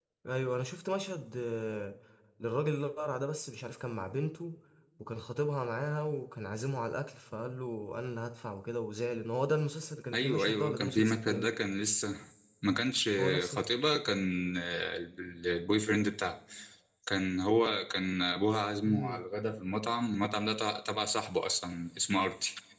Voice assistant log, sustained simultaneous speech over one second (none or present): present